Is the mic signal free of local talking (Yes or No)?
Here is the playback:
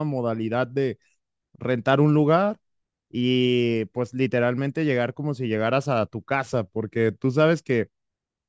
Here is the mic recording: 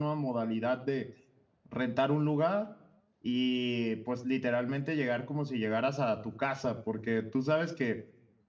Yes